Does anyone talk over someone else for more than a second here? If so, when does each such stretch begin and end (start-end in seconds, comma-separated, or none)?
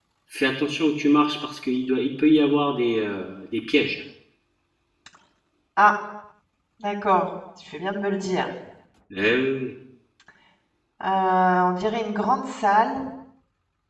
none